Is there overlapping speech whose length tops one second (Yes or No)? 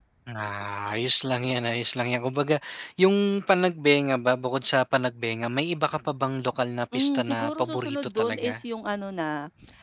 Yes